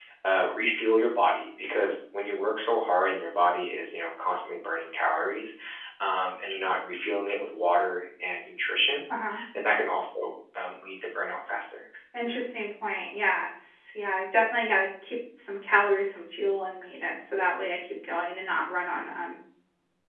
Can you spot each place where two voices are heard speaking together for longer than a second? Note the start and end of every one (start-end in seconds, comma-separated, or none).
none